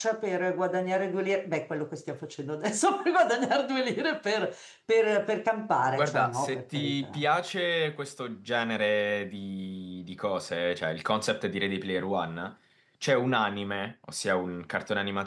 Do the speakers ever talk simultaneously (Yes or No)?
Yes